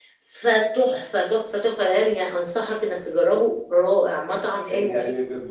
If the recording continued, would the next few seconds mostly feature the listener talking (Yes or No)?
Yes